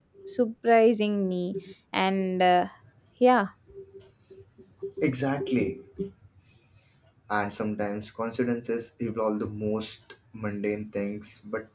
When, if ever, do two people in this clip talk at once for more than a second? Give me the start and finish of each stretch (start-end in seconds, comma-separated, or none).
none